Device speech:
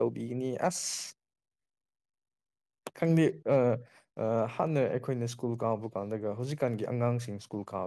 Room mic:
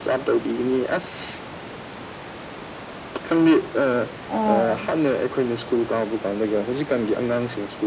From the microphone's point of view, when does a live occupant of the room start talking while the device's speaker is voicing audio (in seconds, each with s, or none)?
4.4 s